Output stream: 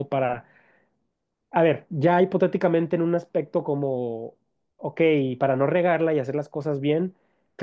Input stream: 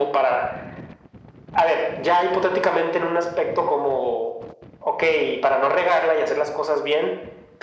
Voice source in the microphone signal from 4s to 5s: echo only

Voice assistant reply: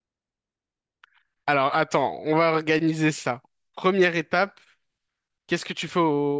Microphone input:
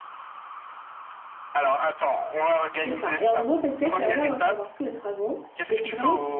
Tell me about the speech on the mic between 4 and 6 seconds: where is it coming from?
both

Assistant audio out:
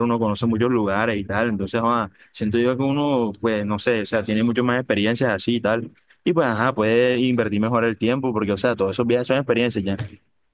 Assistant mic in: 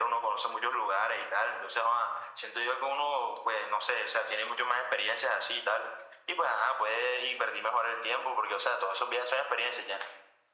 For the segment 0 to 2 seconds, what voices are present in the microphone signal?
echo only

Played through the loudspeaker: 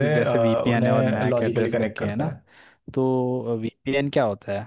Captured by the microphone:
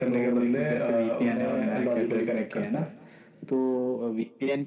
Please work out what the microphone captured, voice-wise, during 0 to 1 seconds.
echo only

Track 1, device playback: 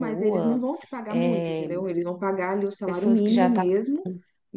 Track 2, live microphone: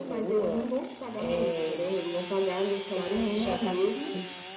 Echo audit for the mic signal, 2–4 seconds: echo only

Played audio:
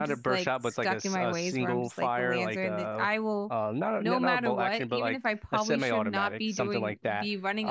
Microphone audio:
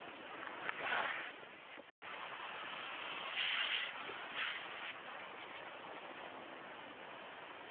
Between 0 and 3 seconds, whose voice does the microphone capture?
neither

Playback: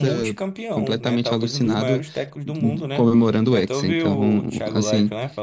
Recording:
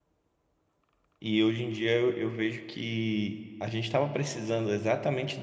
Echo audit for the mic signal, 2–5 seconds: user only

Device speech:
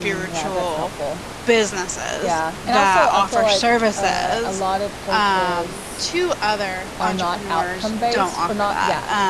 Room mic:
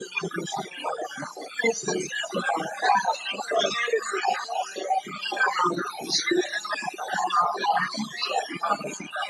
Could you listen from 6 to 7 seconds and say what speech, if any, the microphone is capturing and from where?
echo only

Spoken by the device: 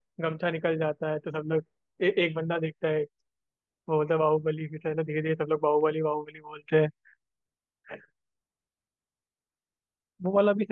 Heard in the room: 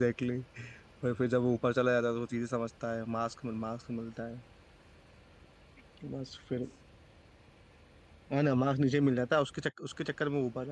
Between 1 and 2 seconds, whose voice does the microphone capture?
user only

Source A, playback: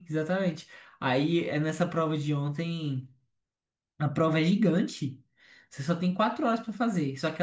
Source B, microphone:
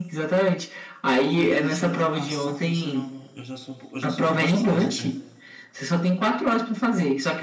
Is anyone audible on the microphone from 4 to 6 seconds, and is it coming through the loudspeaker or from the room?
both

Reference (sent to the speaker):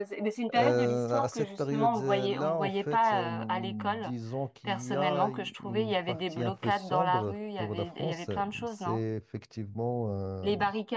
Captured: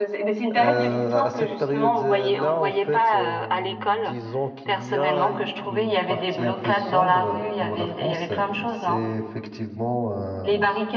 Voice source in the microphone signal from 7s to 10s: echo only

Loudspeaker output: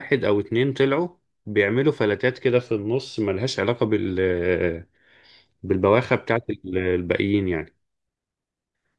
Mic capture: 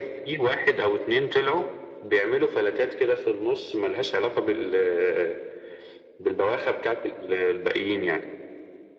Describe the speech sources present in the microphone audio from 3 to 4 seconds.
echo only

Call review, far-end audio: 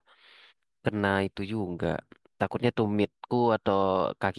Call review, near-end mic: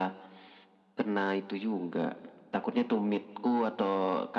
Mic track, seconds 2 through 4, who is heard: echo only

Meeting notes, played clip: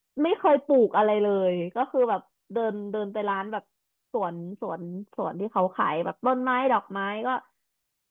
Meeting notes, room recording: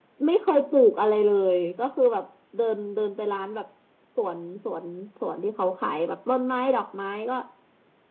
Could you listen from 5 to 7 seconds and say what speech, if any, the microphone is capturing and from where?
echo only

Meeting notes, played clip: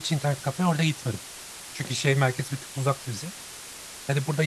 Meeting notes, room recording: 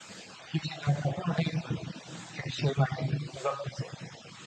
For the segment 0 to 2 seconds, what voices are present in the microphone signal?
echo only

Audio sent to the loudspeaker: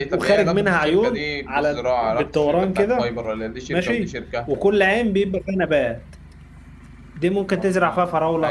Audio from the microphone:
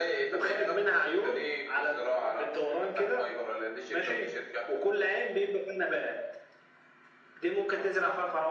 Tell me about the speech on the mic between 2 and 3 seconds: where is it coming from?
echo only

